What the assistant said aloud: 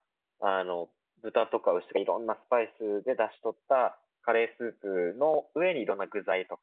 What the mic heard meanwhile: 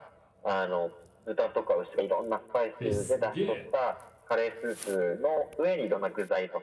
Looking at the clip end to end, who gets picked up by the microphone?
both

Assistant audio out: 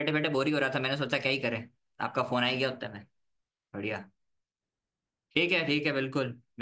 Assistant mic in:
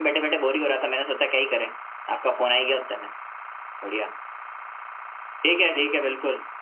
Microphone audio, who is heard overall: echo only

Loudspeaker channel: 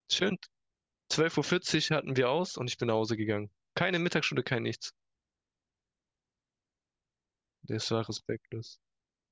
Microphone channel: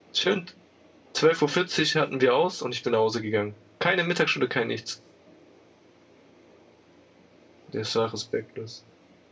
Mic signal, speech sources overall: echo only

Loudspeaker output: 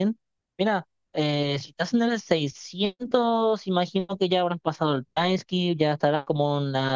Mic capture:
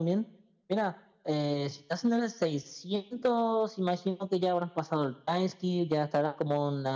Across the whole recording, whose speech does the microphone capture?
echo only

